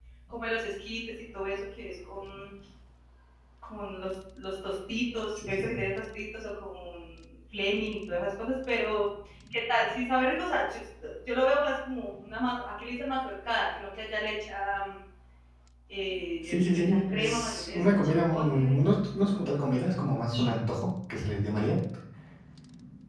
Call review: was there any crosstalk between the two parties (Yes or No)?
Yes